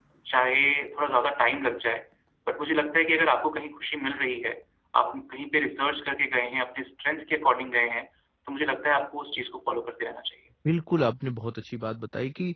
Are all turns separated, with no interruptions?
Yes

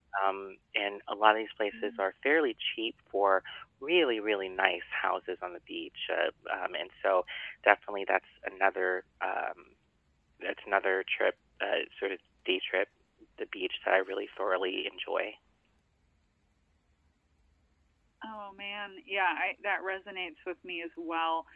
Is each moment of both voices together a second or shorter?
Yes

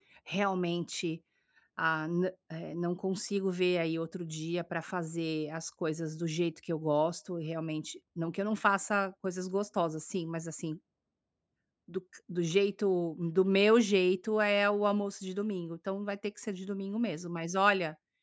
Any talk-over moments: No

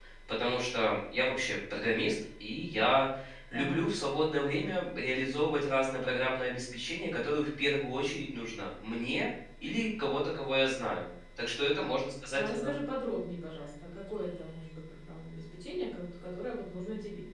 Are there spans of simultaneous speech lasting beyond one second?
No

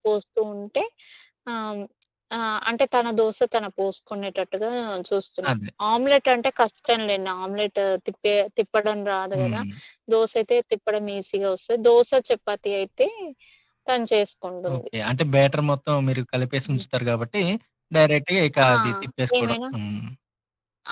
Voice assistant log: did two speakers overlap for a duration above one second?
No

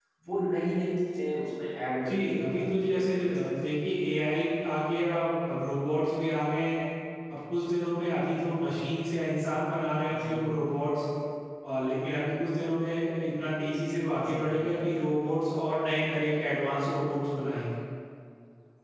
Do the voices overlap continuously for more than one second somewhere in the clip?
Yes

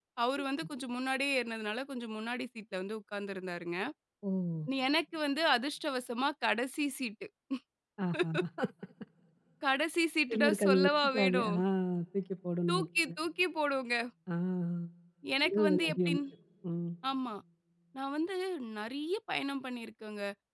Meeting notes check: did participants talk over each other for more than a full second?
Yes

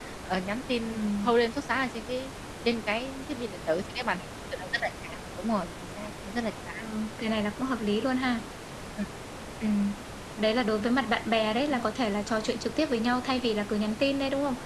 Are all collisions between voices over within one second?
Yes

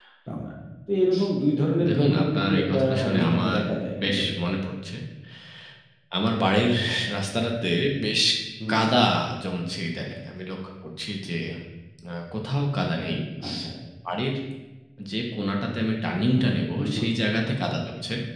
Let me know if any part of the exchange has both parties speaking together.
Yes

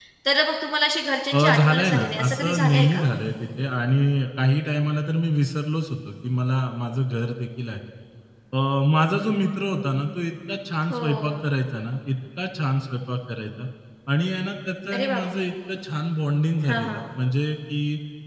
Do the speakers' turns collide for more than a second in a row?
Yes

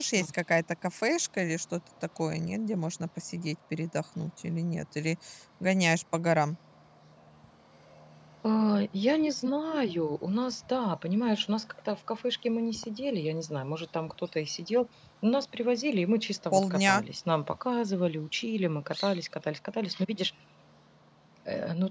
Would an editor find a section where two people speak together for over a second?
No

